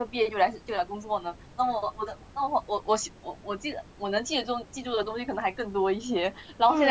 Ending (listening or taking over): listening